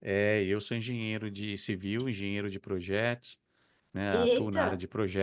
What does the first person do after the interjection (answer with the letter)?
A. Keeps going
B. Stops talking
A